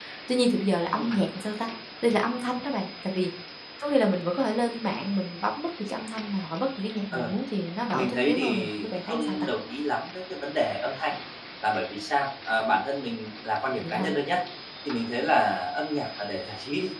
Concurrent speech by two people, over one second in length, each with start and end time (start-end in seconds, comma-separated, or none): 7.9-9.5